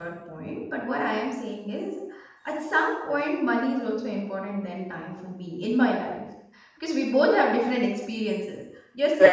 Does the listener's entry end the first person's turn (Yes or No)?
No